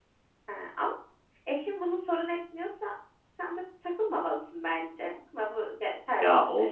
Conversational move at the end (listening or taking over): taking over